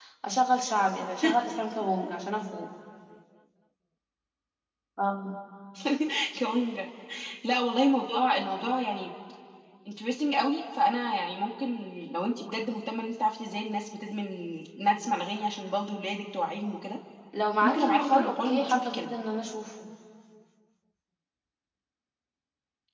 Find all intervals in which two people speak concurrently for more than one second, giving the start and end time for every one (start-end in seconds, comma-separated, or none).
17.6-19.1